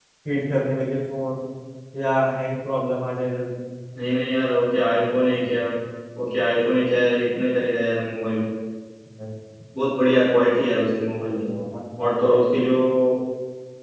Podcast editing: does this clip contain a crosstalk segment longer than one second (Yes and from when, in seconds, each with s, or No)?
No